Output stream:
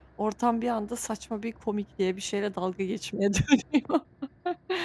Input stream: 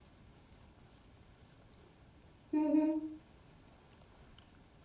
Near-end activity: present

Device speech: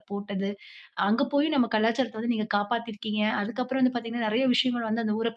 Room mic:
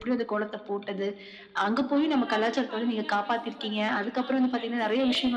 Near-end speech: present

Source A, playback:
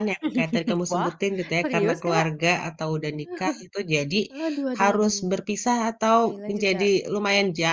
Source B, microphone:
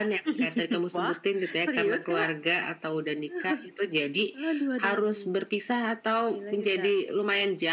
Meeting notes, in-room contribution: none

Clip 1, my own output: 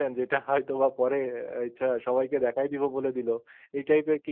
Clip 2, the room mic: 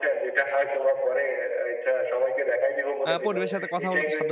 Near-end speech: present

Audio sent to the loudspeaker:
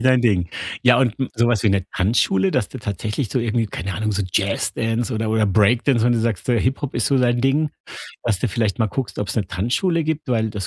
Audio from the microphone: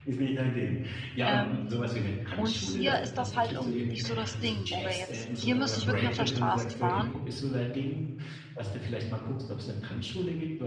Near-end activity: present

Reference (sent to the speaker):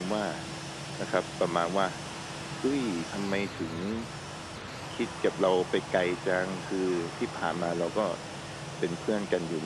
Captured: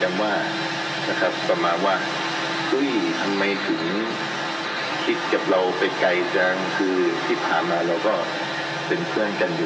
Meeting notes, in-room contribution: none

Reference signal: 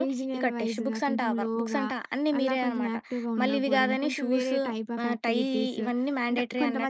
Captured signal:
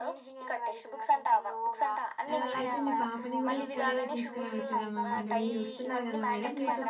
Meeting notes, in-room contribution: present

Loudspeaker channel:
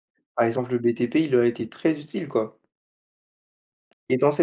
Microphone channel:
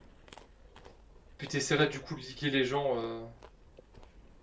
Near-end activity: present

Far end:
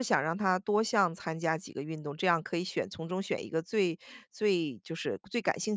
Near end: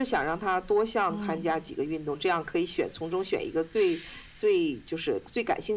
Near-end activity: present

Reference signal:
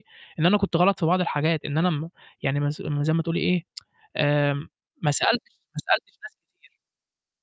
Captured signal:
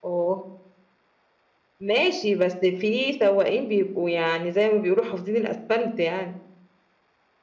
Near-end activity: present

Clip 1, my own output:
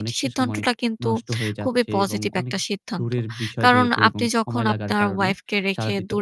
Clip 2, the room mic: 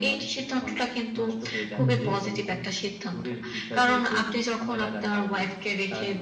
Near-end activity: present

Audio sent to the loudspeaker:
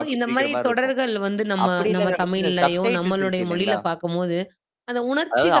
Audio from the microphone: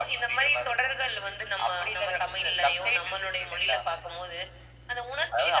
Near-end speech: none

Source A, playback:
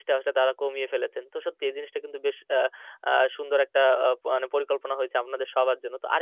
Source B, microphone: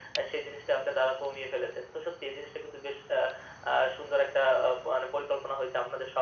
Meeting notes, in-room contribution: none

